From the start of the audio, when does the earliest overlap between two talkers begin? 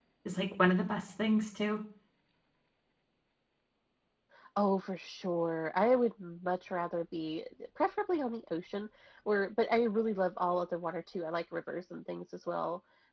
none

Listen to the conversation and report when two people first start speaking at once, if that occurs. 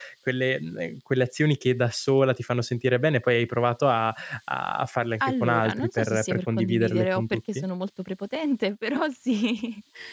5.2 s

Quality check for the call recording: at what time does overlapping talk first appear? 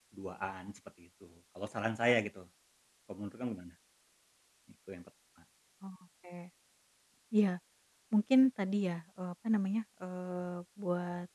none

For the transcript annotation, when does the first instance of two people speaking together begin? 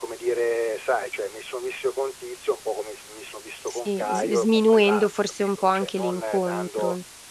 3.7 s

